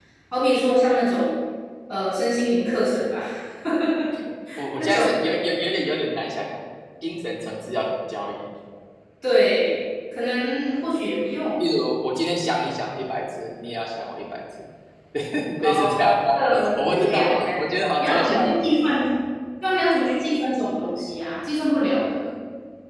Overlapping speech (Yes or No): Yes